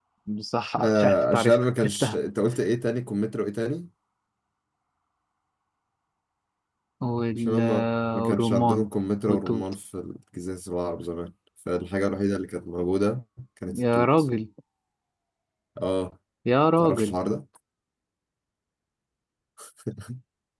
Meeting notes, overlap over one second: present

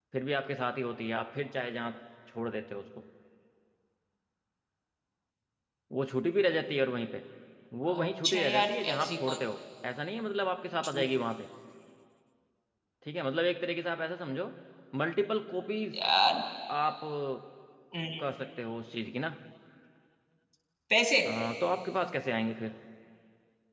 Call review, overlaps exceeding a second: present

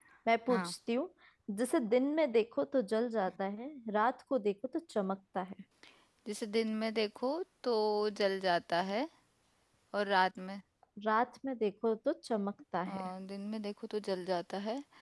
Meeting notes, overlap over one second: none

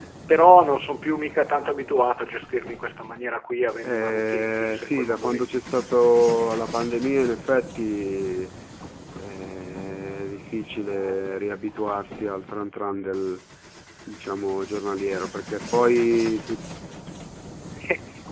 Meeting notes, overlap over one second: present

